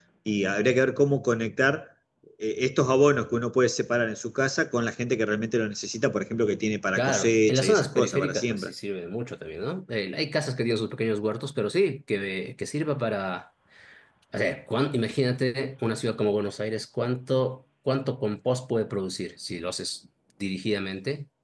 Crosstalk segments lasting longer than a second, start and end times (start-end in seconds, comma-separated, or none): 7.0-8.7